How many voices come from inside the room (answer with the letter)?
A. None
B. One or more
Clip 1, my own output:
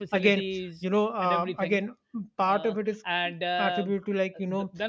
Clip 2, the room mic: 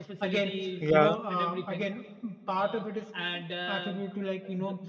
B